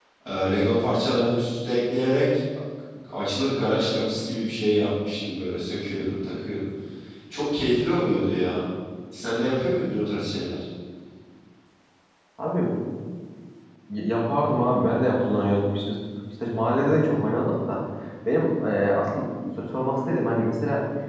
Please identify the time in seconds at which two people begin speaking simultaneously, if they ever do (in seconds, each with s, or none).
none